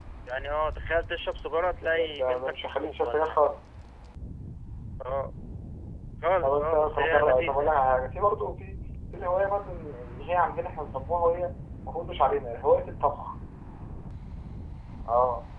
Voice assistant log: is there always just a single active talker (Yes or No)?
No